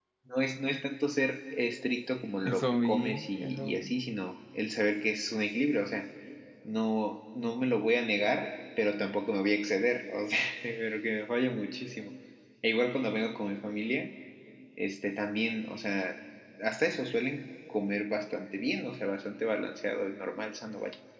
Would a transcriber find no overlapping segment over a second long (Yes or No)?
No